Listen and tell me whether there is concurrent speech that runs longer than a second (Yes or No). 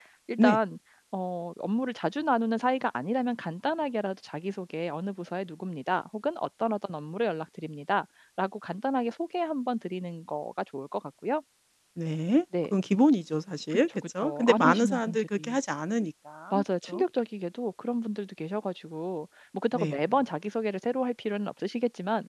Yes